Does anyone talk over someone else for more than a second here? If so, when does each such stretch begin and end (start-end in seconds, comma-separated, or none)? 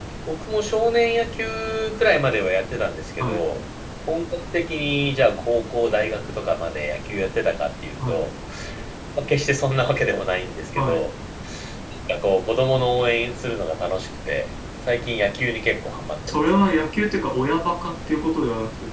none